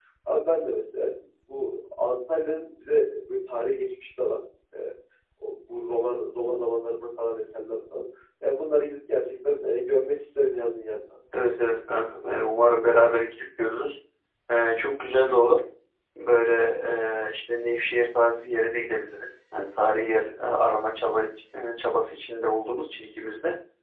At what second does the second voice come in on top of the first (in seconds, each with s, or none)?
none